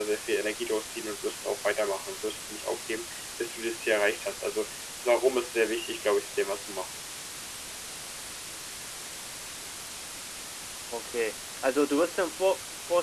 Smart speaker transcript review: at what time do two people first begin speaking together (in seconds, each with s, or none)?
none